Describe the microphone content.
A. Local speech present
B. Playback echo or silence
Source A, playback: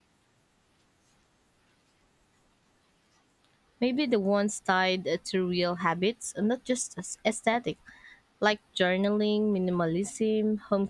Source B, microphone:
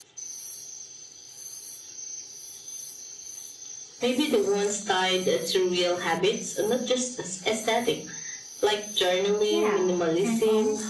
A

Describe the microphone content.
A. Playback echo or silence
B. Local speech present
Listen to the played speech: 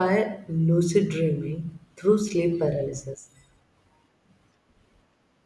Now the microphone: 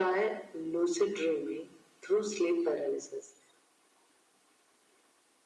A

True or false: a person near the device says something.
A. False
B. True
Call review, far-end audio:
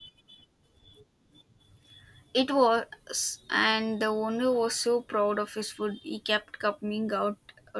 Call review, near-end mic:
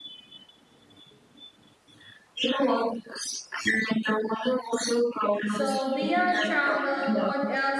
B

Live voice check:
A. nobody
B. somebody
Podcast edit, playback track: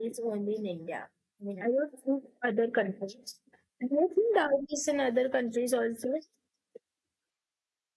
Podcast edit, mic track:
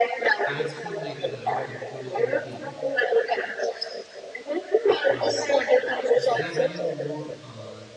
B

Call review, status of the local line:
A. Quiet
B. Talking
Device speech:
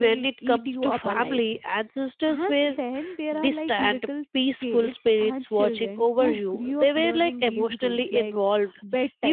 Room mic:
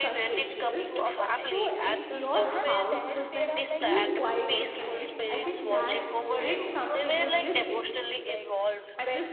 B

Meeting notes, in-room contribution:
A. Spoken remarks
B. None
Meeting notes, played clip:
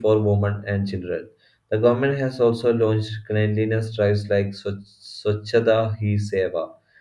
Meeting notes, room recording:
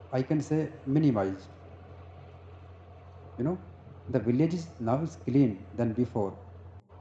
A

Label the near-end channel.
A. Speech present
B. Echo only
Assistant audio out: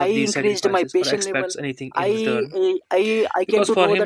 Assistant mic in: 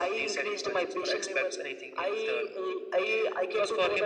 B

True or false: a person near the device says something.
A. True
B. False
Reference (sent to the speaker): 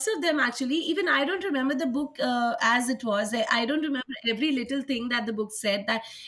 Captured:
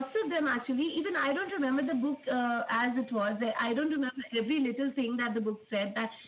B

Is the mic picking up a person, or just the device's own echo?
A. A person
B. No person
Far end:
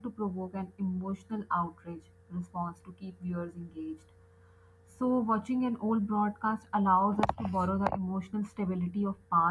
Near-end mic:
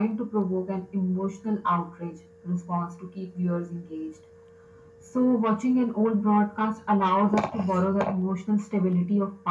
B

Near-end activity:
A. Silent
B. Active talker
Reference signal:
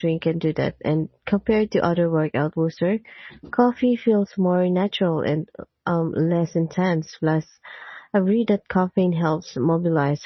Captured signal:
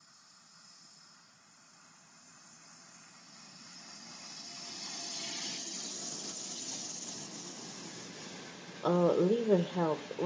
B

